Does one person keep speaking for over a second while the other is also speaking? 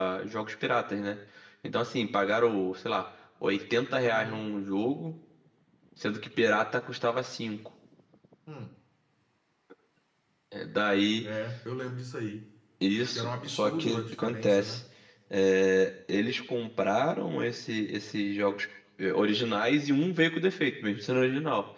Yes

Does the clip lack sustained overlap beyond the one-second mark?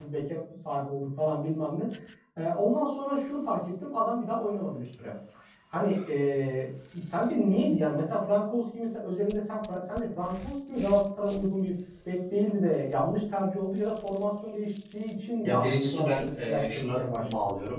No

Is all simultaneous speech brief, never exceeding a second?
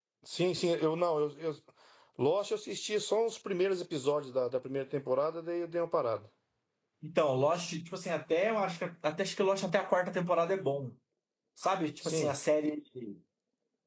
Yes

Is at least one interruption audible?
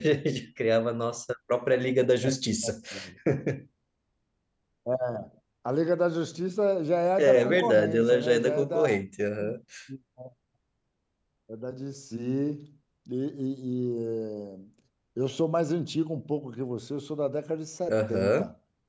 Yes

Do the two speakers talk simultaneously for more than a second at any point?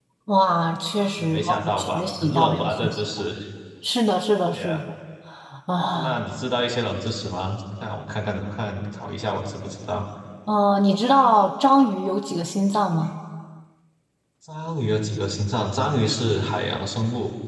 Yes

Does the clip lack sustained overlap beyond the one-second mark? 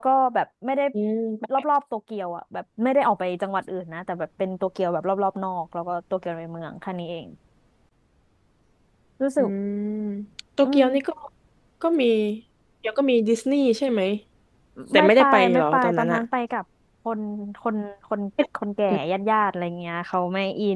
No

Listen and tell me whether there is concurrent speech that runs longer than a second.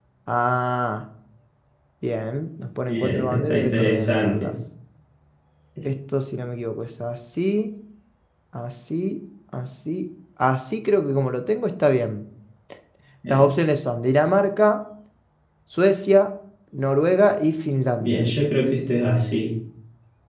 Yes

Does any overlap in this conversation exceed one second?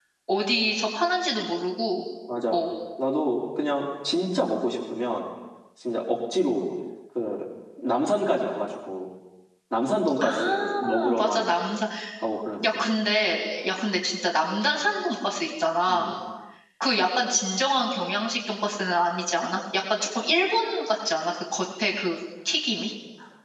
Yes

